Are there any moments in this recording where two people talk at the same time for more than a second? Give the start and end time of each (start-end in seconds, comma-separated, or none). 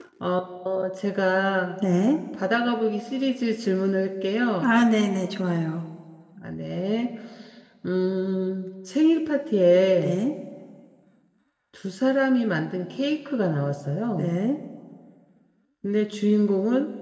none